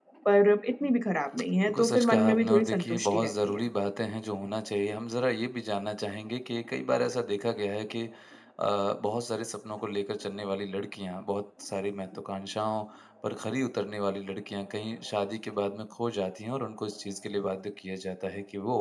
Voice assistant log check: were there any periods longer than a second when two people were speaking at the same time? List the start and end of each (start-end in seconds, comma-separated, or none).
1.6-3.6